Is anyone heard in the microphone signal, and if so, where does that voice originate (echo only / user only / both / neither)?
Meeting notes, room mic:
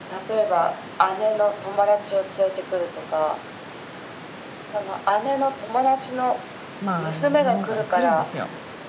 both